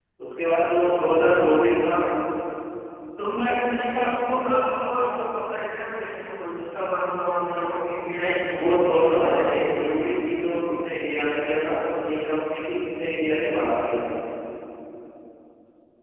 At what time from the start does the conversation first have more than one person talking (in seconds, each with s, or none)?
8.1 s